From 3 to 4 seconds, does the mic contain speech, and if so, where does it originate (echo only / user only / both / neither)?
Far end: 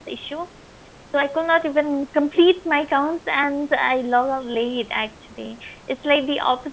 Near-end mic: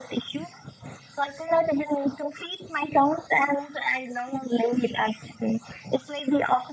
echo only